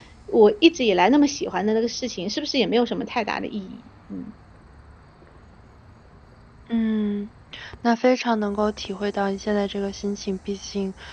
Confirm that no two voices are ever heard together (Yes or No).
Yes